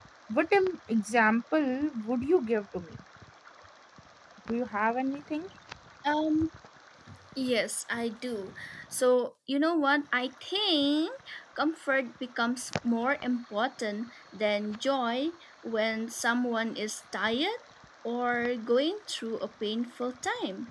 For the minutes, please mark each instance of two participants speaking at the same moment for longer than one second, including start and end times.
none

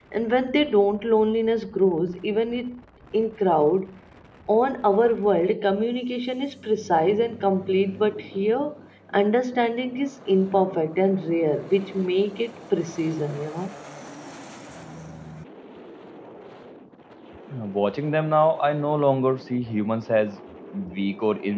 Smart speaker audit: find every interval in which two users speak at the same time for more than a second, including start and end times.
none

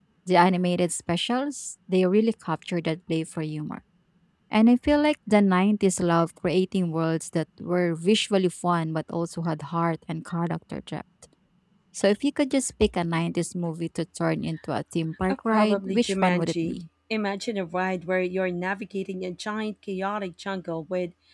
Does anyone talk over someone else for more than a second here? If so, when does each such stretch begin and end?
15.5-16.8

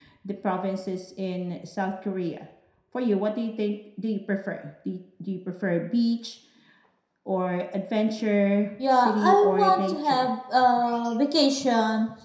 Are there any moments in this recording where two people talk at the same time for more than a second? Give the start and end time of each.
8.9-10.3

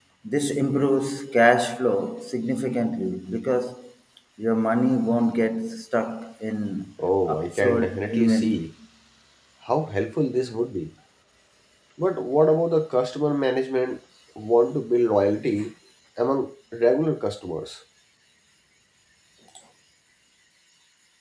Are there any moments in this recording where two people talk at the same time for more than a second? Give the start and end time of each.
7.3-8.6

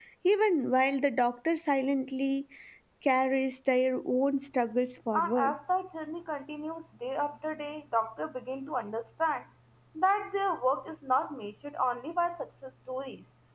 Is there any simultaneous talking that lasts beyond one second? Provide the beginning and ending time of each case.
none

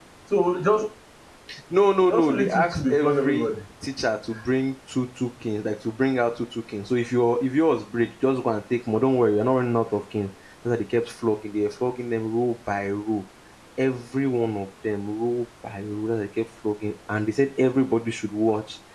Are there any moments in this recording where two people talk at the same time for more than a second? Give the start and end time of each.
2.1-3.5

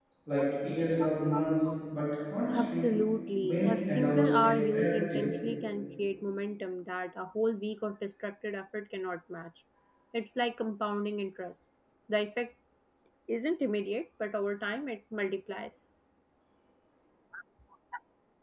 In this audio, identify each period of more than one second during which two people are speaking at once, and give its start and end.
3.4-5.3

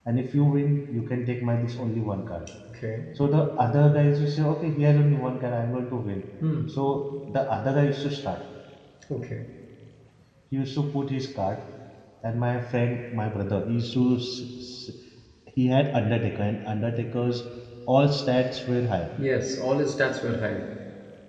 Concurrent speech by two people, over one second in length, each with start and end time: none

